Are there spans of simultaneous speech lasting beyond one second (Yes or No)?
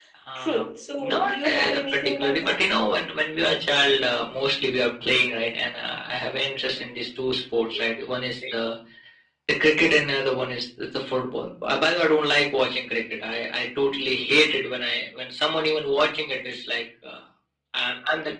Yes